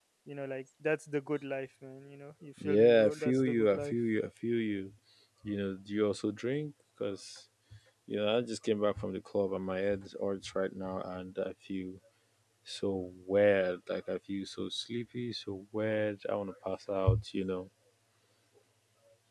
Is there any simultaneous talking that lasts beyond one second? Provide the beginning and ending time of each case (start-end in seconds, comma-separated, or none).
2.6-4.0